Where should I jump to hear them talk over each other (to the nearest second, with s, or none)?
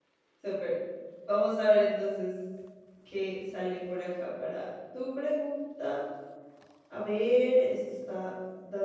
none